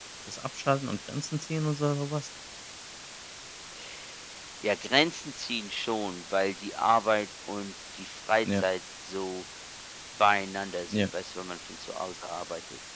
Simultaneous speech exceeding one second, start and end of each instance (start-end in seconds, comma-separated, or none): none